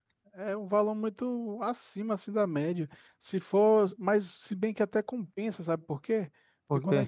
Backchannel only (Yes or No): Yes